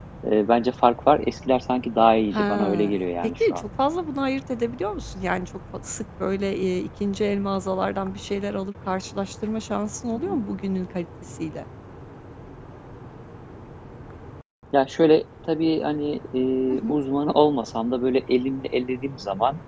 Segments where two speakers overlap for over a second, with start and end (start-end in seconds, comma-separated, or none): 2.3-3.6